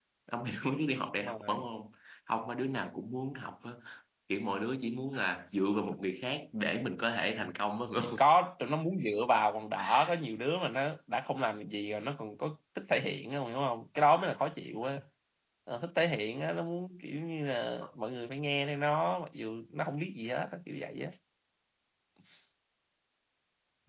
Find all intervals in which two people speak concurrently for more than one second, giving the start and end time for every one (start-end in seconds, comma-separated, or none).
none